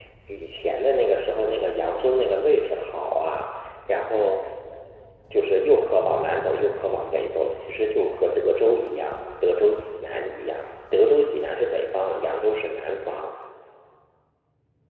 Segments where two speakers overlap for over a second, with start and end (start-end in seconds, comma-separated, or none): none